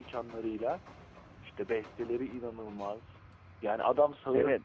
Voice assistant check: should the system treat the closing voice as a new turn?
No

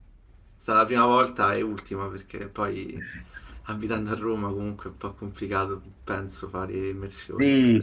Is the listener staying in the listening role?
No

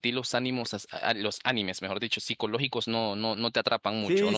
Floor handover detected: Yes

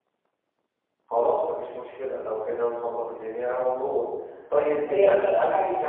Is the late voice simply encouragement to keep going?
Yes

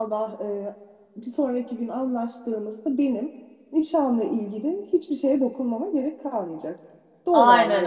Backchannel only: No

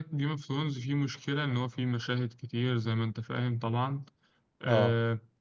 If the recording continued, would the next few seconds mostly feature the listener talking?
No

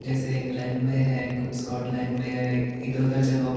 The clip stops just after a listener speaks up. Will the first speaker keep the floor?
Yes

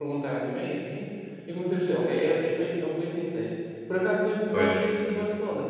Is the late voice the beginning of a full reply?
No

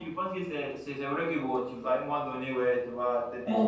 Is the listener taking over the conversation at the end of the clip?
No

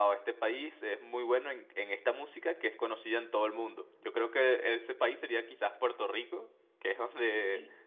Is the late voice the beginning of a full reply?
No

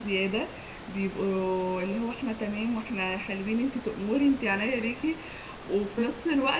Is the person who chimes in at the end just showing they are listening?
Yes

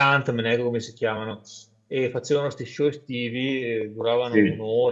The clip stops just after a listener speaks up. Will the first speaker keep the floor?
Yes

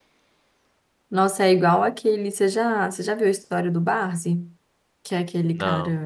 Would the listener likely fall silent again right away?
Yes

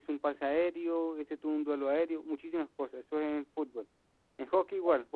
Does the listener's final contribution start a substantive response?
No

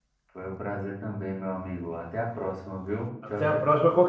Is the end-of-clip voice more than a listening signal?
Yes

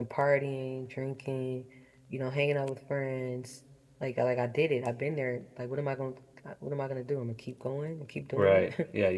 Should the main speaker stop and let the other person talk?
Yes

